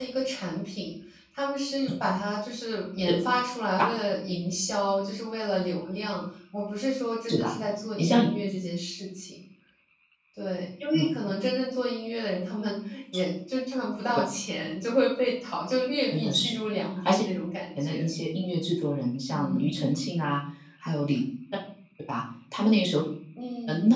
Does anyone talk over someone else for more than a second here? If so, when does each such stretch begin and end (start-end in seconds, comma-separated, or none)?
none